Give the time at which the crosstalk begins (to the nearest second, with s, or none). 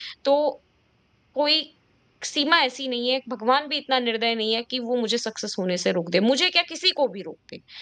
none